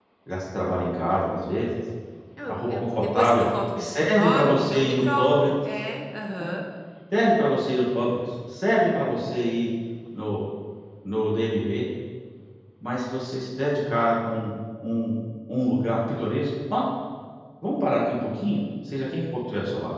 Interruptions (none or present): present